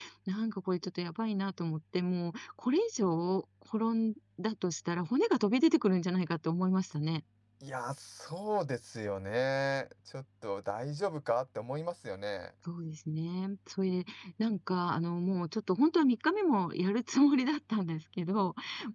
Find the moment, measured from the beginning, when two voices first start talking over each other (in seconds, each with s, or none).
none